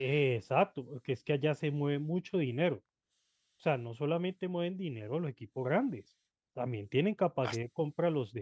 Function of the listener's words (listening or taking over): listening